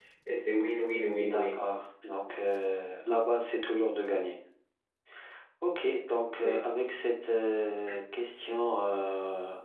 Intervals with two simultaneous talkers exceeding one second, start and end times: none

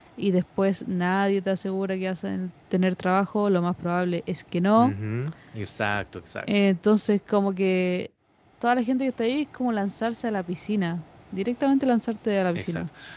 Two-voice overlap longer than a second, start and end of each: none

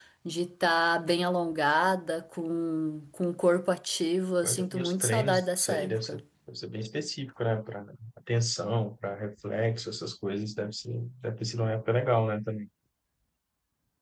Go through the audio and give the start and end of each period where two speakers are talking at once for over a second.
4.4-6.2

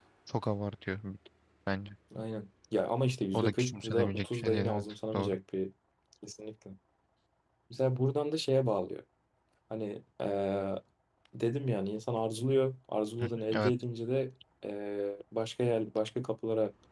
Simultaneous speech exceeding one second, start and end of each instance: 3.3-5.4

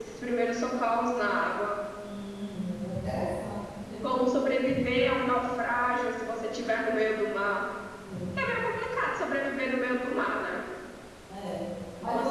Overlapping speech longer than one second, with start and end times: none

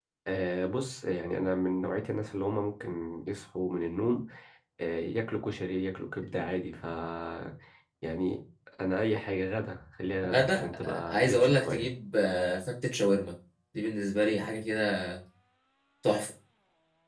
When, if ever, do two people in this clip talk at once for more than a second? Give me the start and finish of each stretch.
10.3-11.9

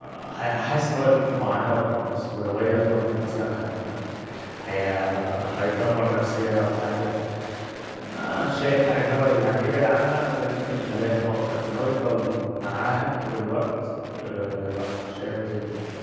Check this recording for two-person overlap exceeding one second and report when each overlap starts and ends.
none

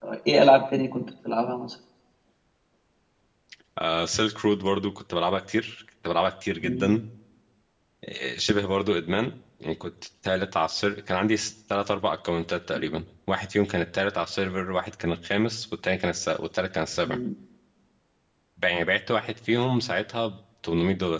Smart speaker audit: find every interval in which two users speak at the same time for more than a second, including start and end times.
none

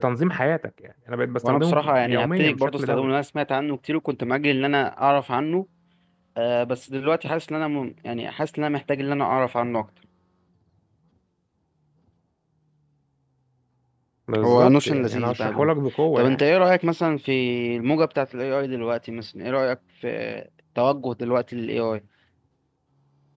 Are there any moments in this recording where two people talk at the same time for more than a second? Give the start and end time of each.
1.4-3.1, 14.4-15.7

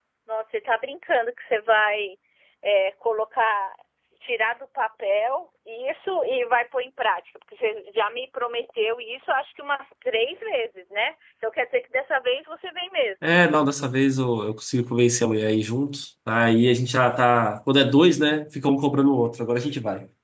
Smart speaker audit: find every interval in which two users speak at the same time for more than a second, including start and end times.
none

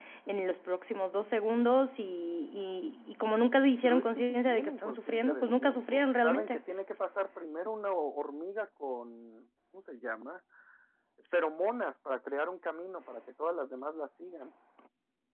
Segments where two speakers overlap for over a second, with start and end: 3.8-6.6

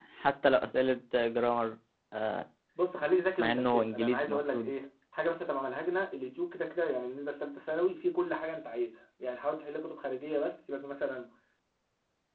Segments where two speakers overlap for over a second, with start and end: 3.4-4.7

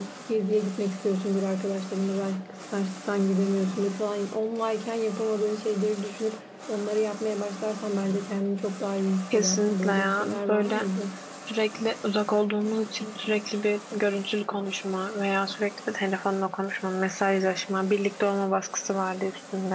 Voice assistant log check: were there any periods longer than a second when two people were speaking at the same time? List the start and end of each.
9.3-10.9

